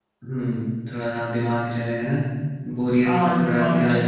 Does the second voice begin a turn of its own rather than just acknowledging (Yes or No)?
Yes